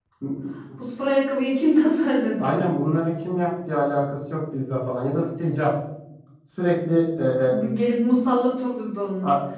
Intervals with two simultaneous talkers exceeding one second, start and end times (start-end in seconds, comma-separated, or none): none